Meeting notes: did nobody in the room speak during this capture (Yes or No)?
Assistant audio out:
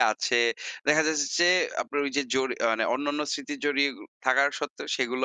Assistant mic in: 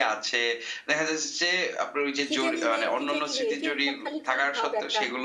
No